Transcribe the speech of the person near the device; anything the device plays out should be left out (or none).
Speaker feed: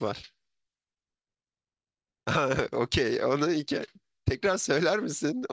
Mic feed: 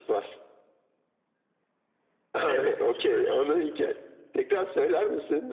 Evet, şıklar.